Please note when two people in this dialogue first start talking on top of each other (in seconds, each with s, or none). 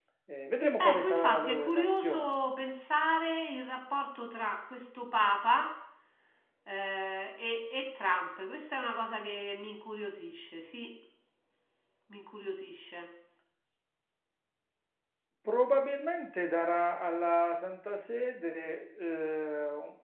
0.8 s